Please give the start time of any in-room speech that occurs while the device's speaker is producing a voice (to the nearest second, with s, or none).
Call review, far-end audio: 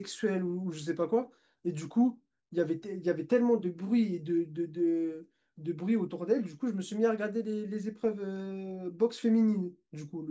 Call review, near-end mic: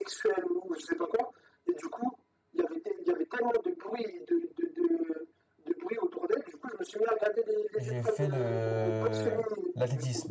8 s